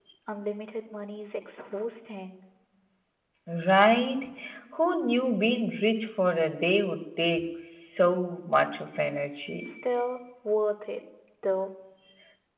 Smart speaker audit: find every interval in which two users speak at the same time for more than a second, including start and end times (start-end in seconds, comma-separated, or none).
none